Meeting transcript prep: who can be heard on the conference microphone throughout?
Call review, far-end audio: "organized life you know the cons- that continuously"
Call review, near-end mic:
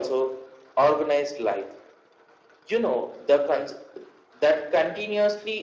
echo only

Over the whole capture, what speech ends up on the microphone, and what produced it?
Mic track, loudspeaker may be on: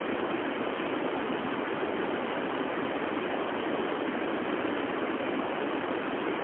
neither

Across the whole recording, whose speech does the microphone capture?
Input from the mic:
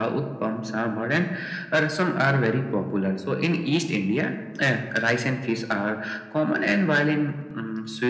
echo only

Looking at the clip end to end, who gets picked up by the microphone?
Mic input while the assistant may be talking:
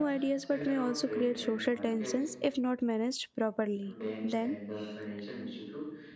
both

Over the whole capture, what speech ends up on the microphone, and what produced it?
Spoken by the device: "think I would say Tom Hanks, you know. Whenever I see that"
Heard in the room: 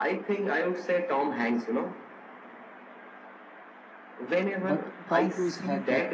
both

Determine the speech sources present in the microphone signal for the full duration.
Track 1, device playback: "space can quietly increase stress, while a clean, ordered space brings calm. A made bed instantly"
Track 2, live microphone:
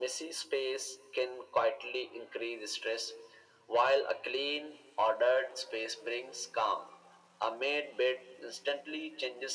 echo only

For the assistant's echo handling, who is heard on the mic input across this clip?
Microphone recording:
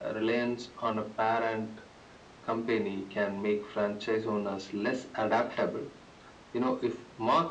echo only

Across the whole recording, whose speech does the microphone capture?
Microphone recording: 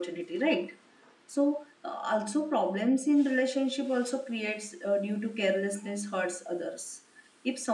user only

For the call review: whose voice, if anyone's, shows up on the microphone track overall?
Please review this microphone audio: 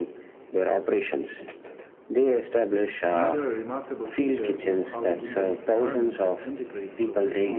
both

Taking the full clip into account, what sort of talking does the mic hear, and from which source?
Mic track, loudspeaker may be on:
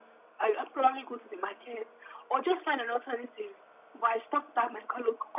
echo only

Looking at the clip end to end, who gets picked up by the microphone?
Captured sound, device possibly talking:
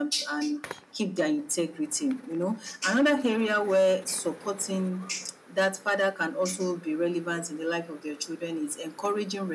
echo only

